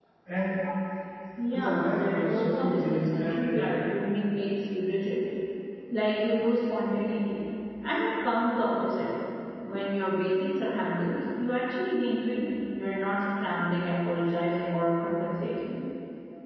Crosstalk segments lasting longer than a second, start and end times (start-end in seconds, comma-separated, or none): 1.5-3.7